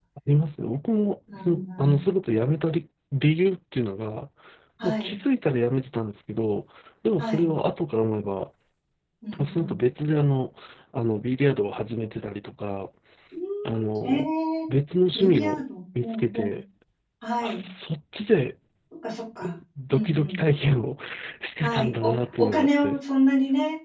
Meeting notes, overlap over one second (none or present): present